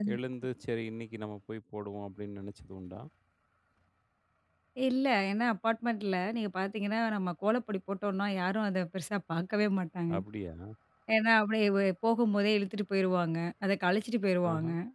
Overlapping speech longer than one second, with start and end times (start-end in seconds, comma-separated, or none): none